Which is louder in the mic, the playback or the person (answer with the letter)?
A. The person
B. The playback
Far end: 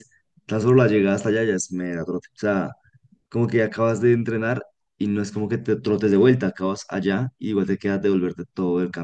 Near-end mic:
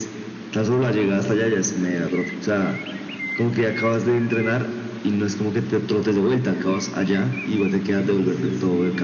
B